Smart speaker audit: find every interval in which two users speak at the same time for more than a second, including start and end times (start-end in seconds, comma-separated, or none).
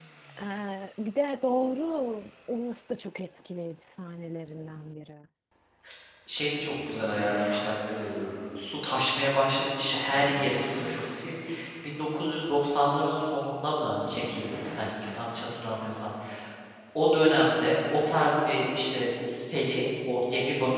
none